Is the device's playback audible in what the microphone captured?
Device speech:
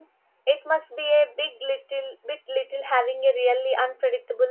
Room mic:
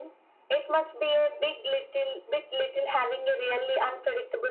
Yes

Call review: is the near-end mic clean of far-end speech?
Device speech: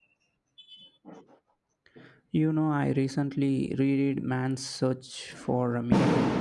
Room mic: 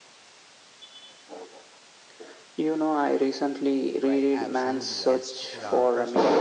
No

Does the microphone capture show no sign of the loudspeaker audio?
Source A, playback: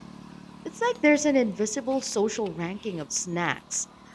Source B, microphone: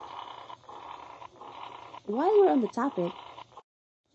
Yes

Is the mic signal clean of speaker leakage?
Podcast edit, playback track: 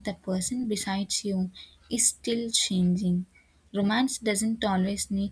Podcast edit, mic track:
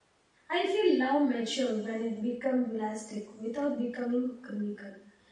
Yes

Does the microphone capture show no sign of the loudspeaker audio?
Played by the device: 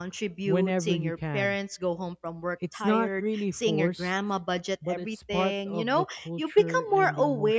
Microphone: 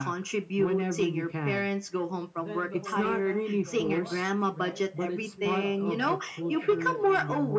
No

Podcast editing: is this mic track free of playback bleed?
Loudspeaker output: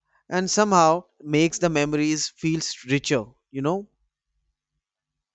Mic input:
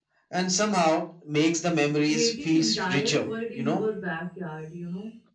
No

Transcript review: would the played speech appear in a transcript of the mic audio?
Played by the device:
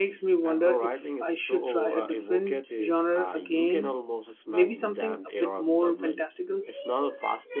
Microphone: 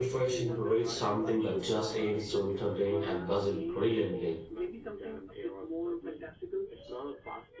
Yes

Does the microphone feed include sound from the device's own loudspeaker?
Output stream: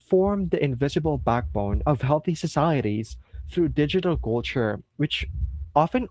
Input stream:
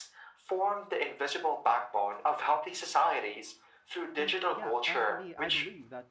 Yes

